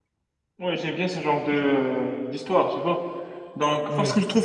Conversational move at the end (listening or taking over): listening